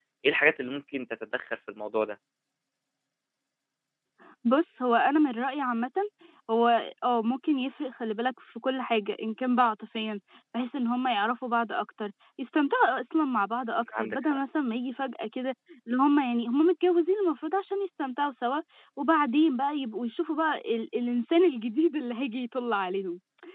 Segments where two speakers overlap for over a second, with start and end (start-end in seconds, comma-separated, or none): none